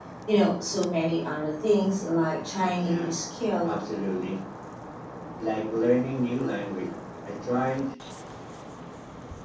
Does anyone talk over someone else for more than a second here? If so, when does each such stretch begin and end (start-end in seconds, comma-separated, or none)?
none